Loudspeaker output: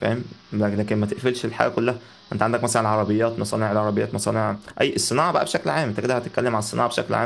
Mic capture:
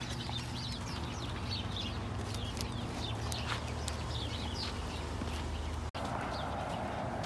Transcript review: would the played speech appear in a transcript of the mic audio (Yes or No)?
No